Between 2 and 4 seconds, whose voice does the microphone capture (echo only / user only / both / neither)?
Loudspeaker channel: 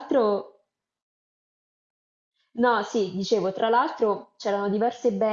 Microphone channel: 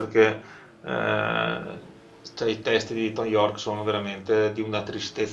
user only